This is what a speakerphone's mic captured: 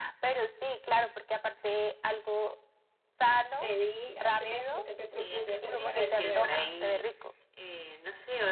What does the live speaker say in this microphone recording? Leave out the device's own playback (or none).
pedí hacer, lo que me propuse hacer para este año.